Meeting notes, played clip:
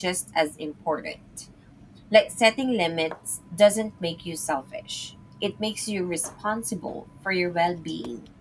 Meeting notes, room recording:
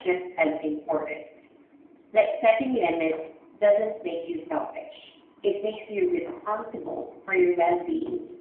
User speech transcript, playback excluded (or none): none